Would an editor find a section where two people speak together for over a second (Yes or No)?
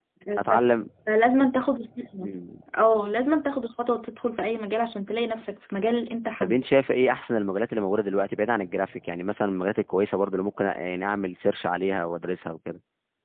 No